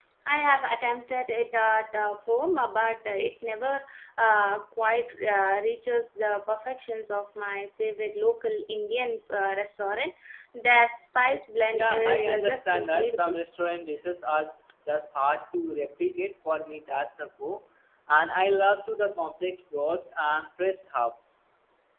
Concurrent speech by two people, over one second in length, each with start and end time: 11.7-13.3

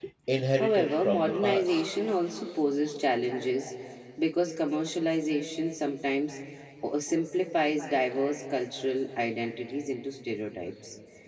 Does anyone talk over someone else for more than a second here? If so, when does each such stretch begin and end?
0.6-1.8

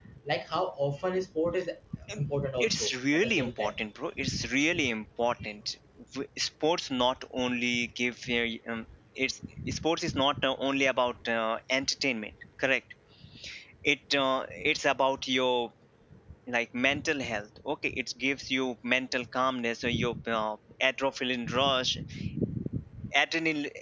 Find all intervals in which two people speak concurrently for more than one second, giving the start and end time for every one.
2.2-3.7

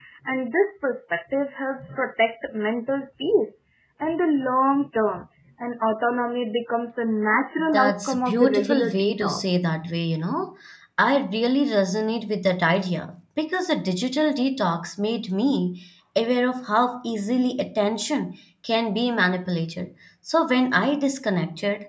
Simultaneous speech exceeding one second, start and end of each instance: 7.6-9.7

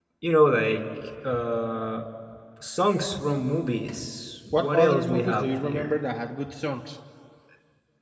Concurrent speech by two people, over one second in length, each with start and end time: 4.5-6.0

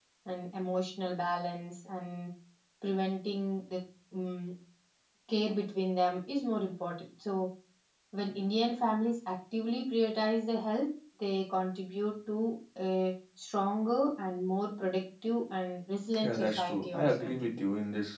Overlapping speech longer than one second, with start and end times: 16.2-17.5

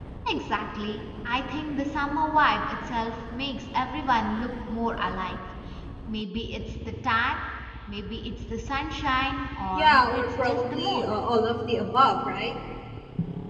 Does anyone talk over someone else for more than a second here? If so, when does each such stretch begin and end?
9.7-11.1

